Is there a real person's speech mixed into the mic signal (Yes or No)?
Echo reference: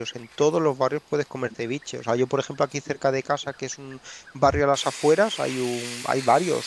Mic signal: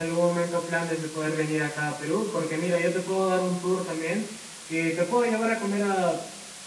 Yes